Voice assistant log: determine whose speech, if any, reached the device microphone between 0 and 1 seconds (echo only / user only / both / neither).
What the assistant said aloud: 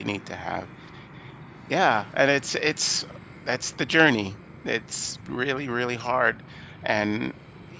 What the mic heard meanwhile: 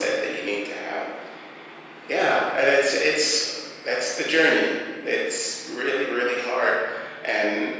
echo only